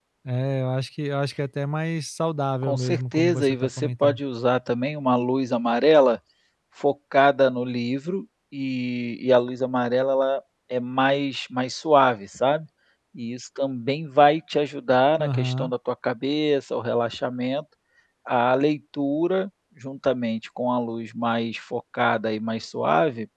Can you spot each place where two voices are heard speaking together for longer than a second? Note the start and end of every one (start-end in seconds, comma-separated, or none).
2.6-4.2